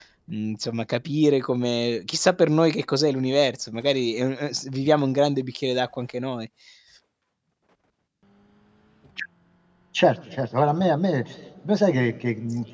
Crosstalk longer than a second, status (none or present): none